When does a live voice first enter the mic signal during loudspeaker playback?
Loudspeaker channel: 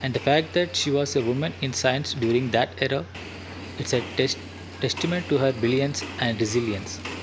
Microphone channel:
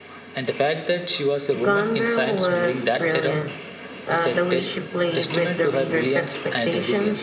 2 s

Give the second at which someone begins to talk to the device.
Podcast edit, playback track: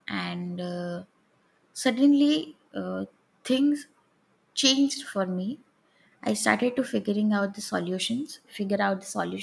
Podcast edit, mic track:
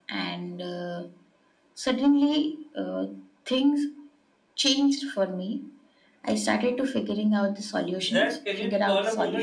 8 s

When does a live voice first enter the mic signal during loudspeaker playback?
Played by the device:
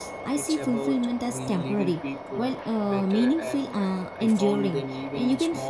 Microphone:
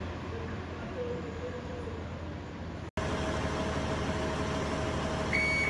none

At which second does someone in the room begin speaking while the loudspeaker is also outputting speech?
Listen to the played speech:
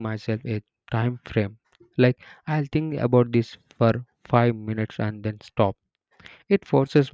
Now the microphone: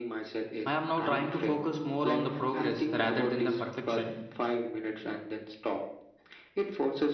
1 s

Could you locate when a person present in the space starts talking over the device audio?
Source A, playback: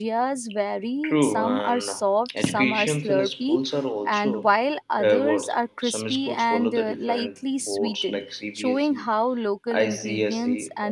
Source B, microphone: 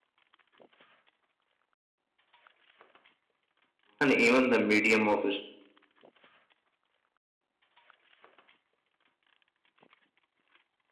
4 s

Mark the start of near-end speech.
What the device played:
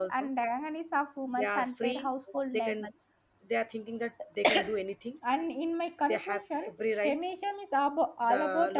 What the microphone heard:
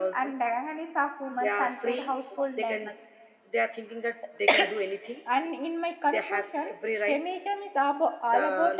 none

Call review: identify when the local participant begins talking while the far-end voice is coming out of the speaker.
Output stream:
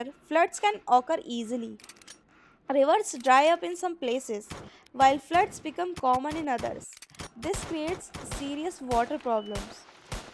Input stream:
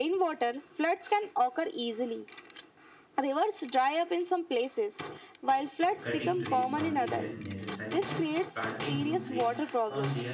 6 s

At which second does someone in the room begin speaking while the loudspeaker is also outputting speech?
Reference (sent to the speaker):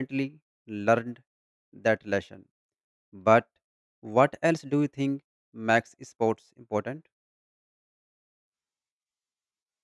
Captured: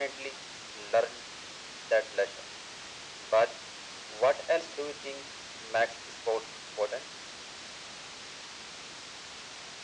none

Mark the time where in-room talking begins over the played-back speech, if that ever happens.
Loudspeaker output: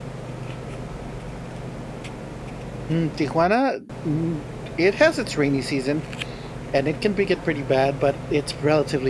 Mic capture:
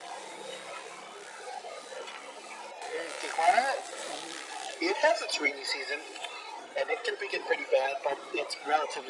none

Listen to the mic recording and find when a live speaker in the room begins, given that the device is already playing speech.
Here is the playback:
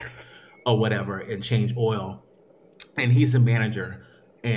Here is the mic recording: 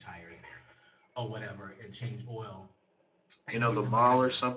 4 s

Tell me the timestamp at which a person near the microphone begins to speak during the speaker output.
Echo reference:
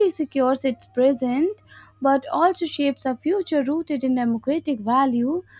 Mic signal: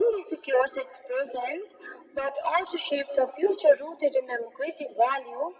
none

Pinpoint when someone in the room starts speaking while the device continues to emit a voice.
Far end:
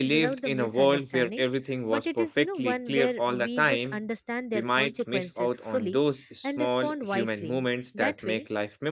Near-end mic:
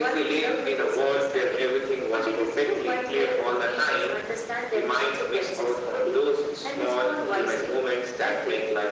none

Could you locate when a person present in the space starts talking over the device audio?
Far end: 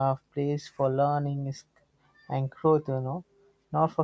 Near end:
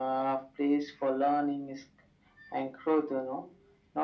none

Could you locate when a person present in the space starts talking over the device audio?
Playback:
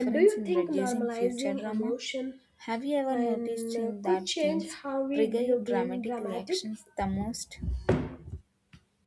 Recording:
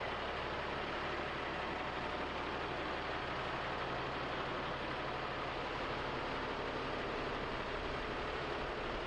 none

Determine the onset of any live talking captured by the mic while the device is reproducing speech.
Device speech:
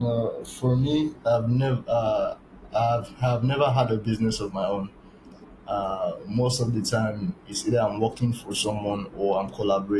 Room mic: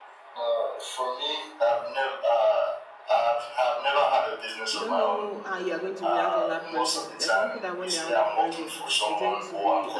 5 s

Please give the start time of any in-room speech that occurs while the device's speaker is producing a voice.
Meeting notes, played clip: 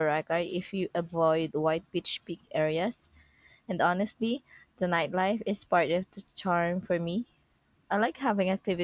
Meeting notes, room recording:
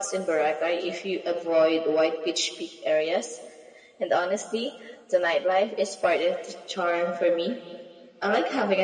none

